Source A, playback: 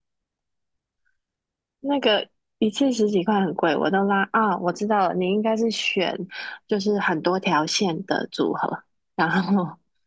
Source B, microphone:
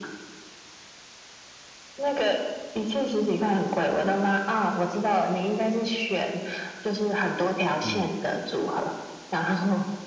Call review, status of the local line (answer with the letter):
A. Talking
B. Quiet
A